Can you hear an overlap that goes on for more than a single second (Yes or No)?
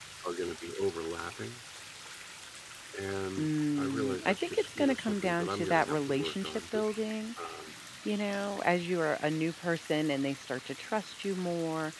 Yes